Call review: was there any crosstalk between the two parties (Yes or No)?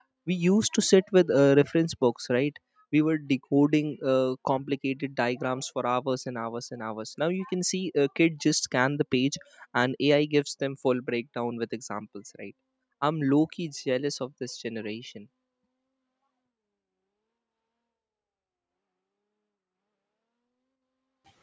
No